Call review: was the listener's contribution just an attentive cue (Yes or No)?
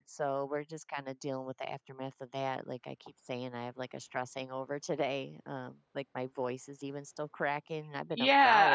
No